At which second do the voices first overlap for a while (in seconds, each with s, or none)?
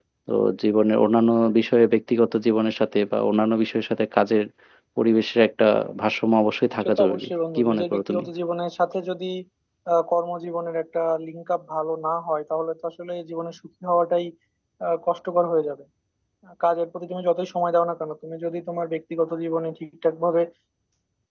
6.8 s